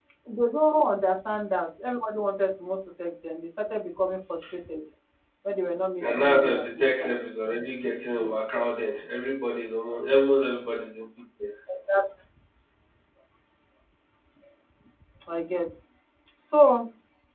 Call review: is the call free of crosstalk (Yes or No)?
No